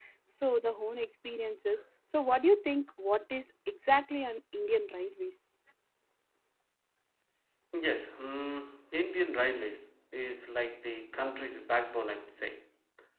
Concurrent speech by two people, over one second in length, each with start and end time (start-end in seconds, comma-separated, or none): none